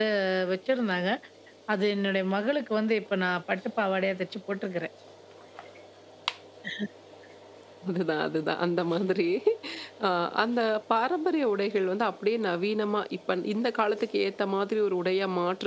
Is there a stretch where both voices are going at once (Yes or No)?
No